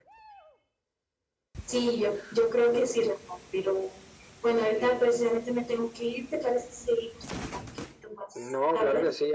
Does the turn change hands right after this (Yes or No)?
Yes